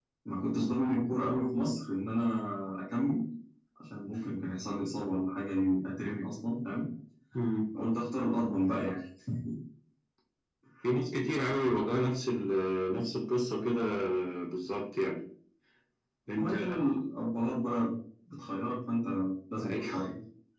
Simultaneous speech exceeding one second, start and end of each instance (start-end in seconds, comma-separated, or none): none